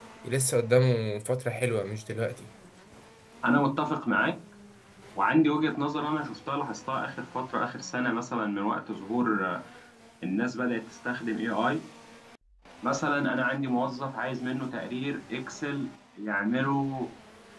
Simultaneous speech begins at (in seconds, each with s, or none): none